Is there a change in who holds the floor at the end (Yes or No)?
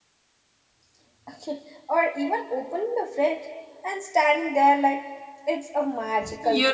Yes